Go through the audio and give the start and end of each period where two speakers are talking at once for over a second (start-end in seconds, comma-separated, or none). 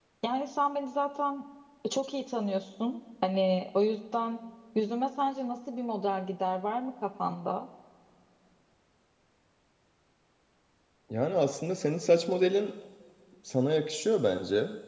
none